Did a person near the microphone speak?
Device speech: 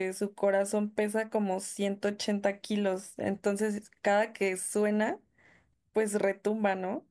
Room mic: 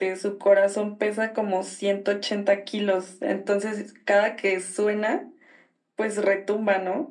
No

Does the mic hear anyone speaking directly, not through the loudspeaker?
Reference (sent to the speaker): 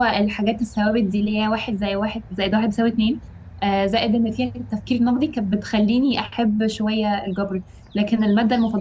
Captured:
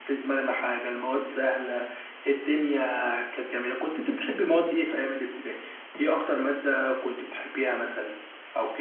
Yes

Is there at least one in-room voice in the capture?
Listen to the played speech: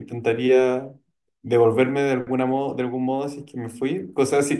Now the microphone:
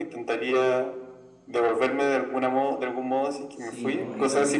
Yes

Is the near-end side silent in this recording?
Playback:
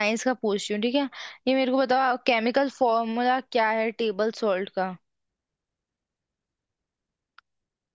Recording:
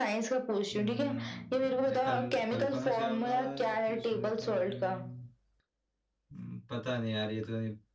No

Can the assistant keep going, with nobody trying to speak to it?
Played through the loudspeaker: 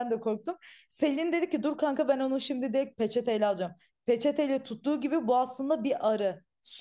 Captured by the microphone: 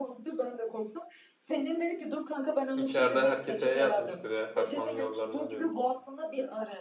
No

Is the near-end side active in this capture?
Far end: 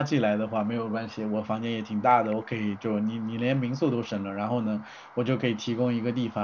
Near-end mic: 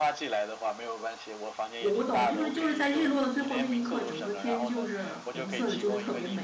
Yes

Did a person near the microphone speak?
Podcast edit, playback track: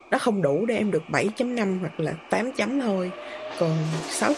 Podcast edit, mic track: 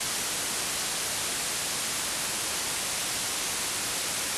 No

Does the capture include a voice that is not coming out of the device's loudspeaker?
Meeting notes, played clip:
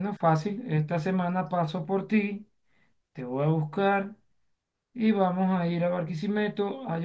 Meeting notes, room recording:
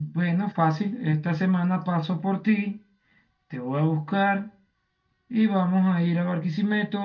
No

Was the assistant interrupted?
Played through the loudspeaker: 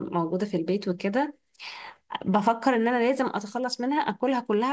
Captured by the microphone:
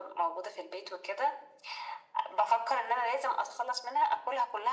No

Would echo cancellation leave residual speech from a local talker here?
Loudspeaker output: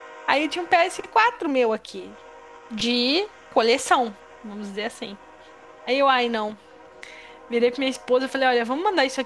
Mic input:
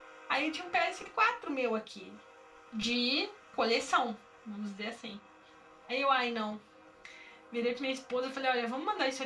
No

